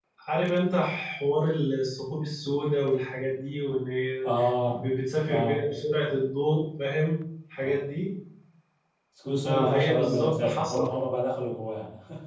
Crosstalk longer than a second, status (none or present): present